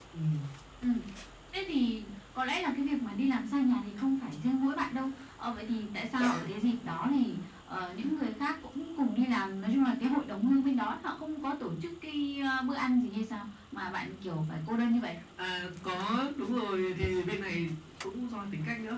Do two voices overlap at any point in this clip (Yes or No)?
No